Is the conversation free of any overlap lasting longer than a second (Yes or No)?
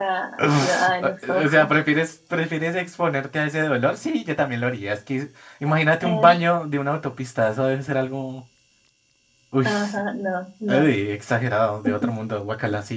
No